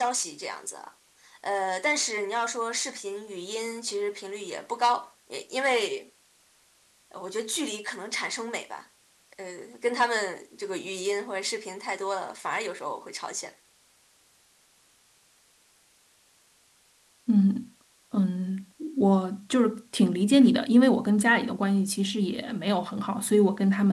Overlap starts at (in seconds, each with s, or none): none